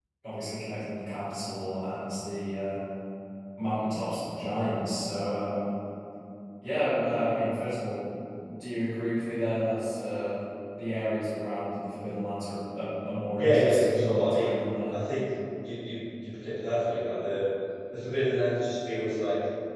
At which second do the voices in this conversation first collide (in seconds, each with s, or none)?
13.4 s